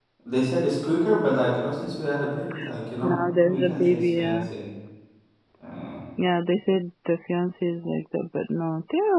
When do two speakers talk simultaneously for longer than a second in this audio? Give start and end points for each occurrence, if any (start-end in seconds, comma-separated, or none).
3.0-4.4